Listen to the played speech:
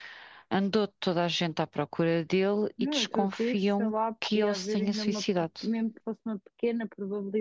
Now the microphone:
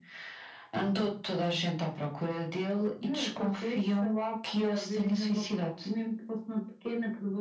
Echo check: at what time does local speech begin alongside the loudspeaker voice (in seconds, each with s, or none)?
none